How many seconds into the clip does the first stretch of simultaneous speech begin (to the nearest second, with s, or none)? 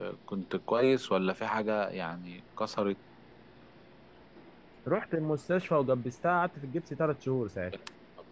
none